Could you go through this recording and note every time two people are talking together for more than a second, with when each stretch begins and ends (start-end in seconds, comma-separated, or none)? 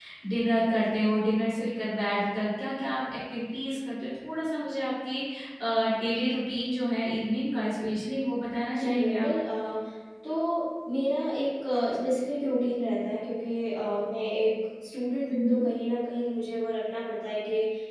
none